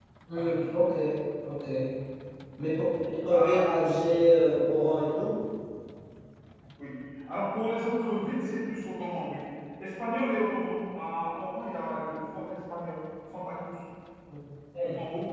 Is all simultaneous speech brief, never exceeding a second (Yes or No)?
Yes